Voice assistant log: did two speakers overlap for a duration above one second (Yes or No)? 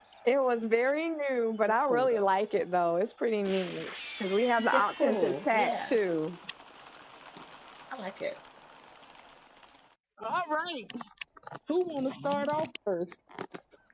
Yes